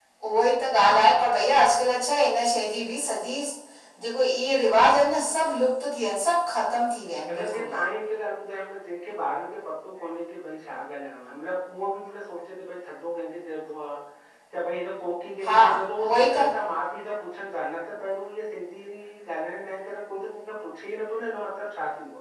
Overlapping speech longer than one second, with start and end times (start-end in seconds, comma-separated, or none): none